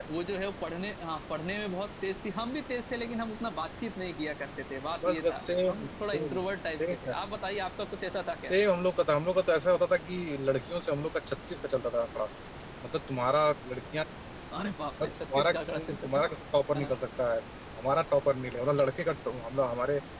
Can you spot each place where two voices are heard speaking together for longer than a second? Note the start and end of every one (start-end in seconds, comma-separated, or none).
5.1-6.4, 15.0-16.2